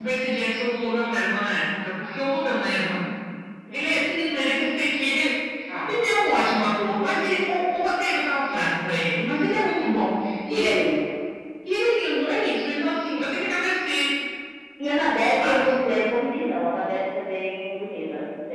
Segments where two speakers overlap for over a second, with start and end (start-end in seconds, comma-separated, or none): none